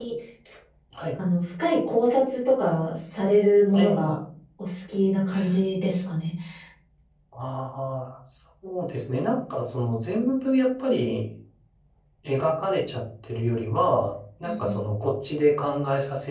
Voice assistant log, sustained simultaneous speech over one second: none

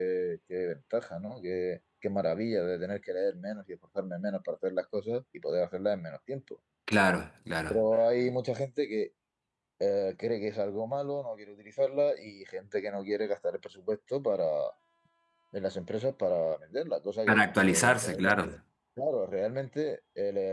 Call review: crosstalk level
present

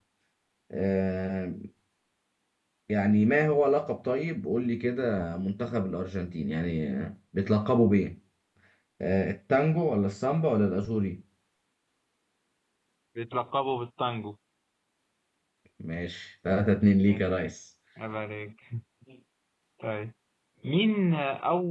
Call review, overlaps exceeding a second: none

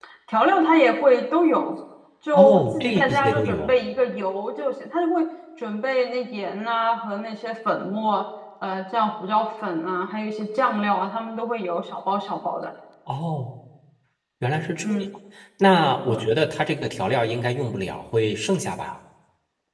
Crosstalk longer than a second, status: present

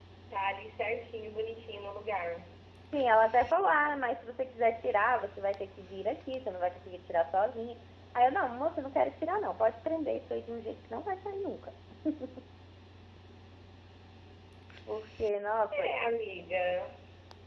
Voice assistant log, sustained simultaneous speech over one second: none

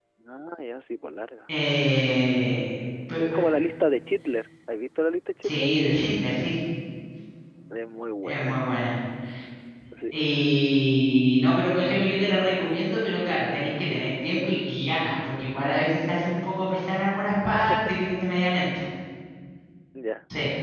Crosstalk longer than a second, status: none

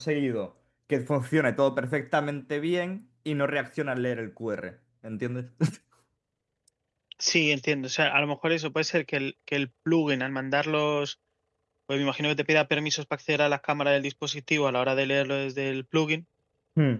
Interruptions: none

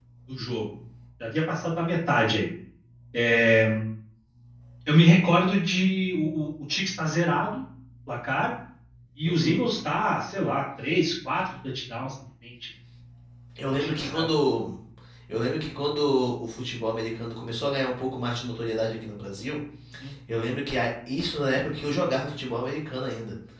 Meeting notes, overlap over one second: none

